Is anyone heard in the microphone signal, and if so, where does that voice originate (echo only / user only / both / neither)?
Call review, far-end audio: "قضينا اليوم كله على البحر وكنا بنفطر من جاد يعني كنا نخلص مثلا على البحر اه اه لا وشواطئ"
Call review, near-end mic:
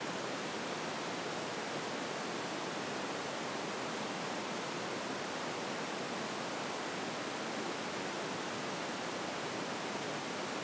neither